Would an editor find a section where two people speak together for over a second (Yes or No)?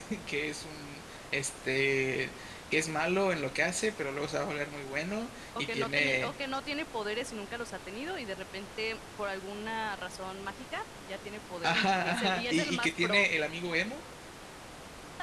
Yes